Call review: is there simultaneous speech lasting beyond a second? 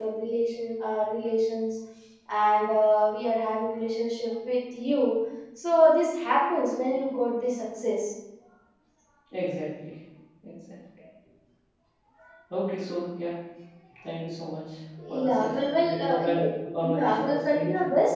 Yes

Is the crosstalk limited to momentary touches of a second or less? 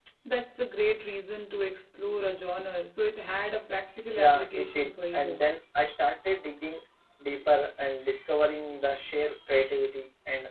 No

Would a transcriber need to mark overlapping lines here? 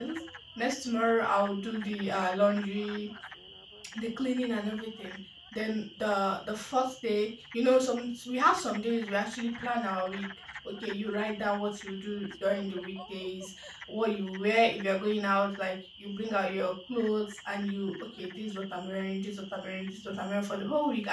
No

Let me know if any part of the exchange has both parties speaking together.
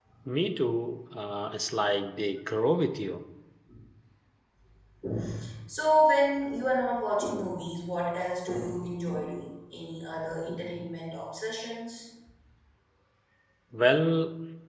No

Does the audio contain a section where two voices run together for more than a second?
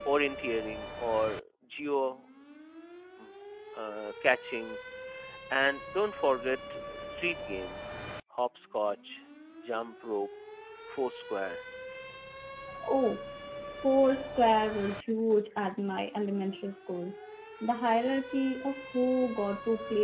No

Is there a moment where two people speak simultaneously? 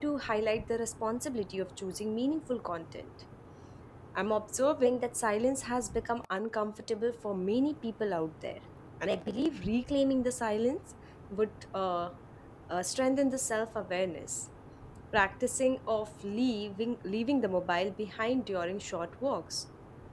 No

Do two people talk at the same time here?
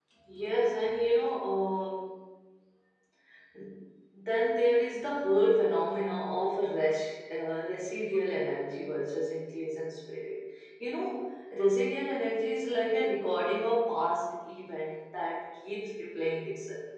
No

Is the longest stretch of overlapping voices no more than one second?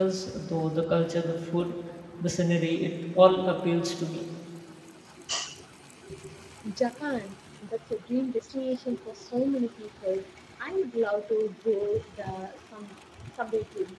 Yes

